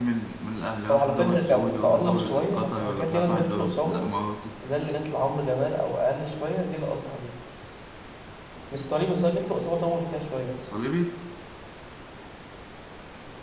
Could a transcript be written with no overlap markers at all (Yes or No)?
No